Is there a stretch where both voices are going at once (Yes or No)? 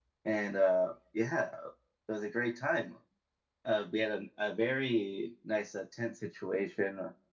No